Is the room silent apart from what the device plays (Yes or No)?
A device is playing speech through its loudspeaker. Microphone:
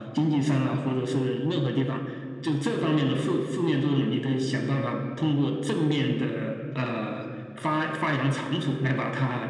Yes